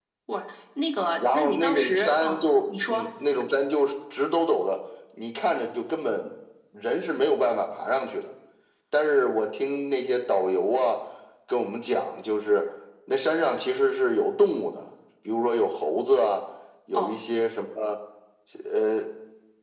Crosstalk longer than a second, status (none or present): present